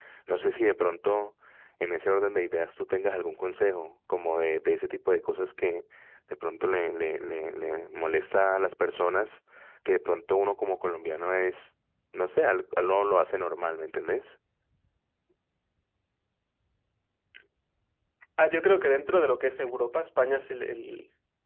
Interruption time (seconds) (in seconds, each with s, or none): none